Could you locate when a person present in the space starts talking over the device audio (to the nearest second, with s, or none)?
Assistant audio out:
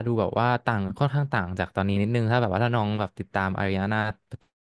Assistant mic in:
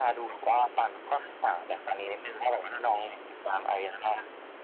none